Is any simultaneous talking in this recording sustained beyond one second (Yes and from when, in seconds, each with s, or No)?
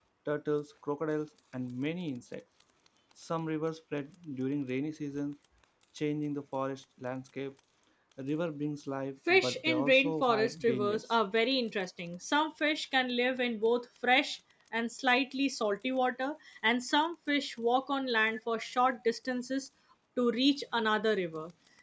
Yes, from 9.3 s